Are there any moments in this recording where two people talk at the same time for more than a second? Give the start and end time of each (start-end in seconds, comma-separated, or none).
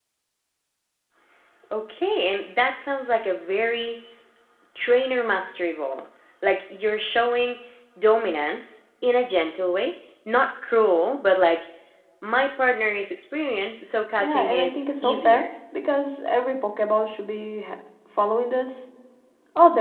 14.2-15.5